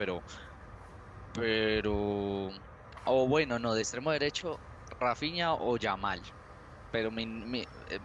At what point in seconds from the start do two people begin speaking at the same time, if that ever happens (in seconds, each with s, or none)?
none